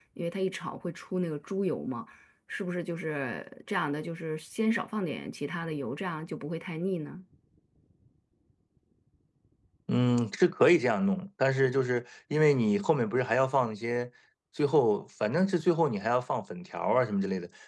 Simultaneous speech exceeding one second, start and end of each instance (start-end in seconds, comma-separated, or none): none